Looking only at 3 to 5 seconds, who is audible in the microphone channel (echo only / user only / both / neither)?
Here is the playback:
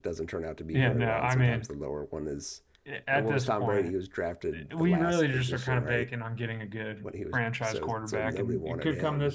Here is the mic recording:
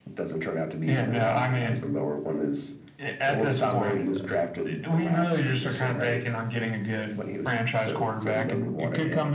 both